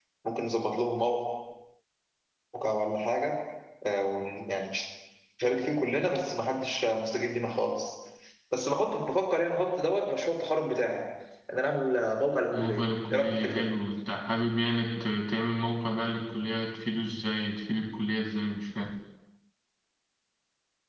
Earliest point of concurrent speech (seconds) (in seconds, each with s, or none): 12.5 s